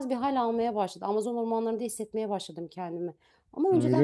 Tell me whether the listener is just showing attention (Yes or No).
No